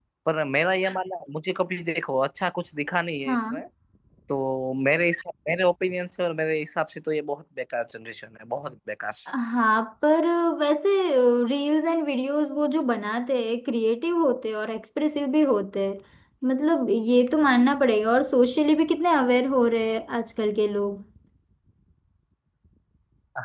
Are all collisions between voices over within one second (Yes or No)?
Yes